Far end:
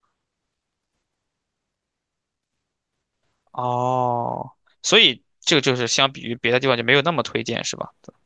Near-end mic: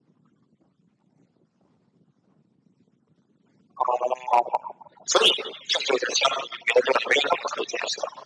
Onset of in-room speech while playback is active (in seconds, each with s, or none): none